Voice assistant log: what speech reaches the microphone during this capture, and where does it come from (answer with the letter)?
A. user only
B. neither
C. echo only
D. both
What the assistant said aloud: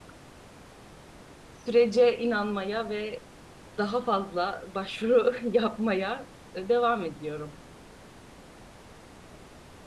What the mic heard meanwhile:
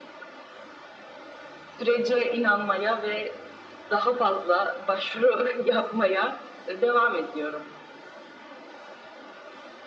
C